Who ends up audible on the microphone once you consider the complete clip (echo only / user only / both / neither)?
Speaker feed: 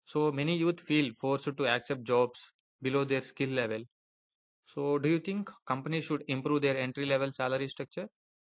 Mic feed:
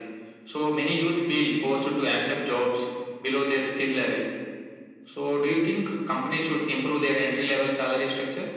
echo only